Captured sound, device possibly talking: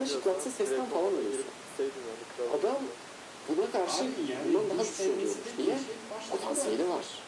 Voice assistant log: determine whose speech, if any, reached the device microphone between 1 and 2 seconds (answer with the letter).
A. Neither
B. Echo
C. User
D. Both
B